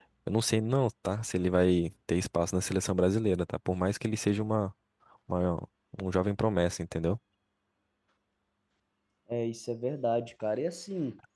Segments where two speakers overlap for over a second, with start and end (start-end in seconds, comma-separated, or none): none